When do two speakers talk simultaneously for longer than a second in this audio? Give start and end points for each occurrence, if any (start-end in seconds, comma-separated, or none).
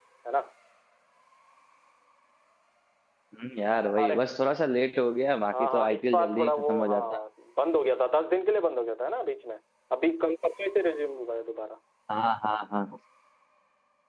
5.5-7.2